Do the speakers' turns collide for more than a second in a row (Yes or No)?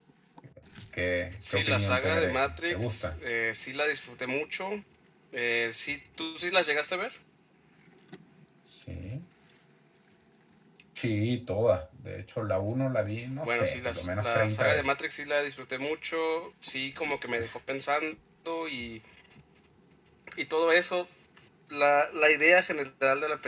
Yes